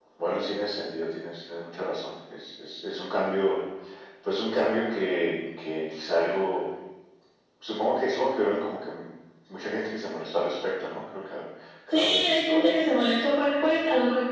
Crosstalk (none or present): present